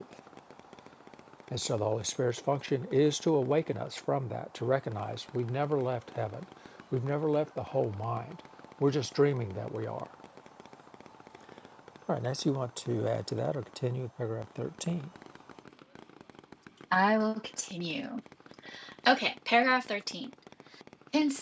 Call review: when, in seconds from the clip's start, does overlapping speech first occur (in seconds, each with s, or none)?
none